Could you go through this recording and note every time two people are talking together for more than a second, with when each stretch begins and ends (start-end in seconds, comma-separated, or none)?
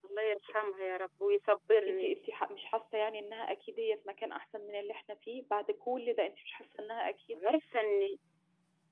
none